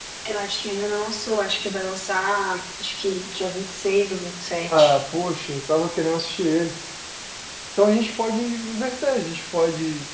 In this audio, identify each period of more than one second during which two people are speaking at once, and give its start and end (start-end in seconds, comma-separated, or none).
none